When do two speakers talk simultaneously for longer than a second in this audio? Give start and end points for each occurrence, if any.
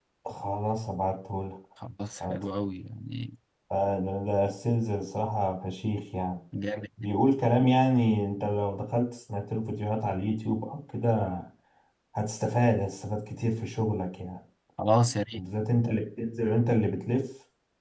none

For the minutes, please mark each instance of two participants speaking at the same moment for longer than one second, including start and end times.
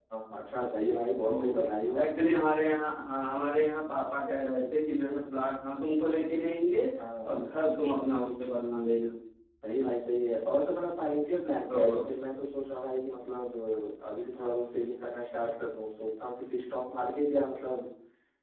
none

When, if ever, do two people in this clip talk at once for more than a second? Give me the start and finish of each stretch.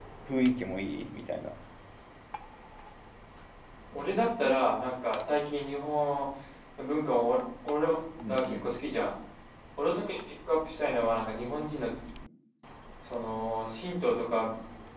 none

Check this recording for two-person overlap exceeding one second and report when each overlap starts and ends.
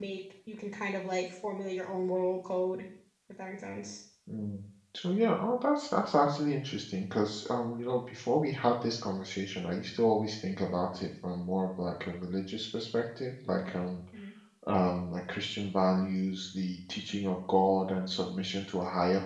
none

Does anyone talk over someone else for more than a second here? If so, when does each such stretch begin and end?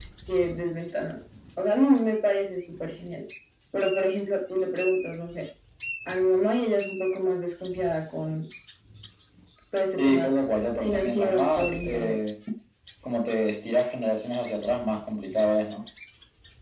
10.8-12.2

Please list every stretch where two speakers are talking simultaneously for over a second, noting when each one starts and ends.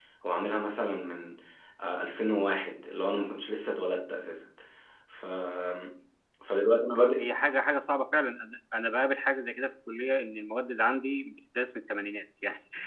none

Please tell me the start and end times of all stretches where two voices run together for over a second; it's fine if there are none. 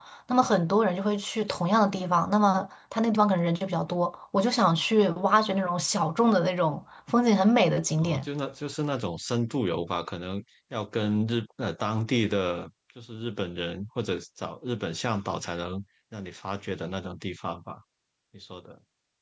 none

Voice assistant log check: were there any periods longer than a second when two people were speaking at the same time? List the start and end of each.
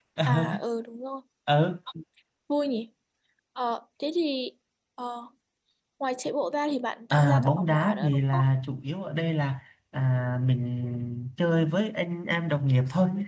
7.1-8.4

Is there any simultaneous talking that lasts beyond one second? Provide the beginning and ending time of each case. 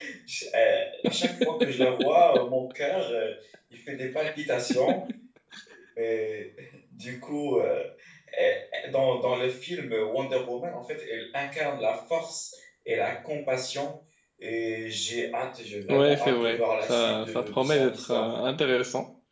15.9-18.3

